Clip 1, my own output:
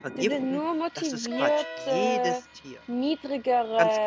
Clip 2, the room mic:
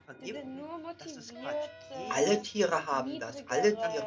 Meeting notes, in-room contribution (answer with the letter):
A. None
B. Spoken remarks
B